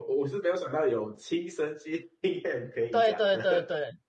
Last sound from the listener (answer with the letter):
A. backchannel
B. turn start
B